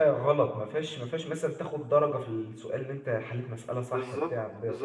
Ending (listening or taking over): taking over